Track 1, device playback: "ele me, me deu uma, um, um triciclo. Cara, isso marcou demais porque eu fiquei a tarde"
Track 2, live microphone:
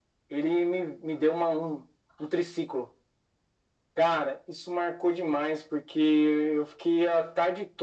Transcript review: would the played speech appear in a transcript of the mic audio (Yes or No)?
Yes